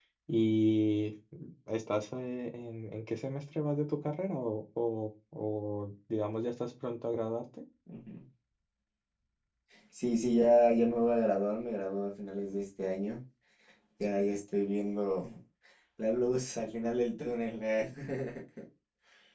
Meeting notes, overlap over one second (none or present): none